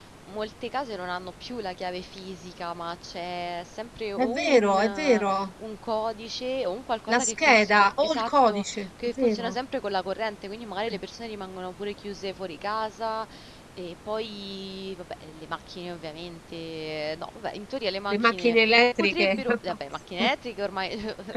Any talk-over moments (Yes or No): Yes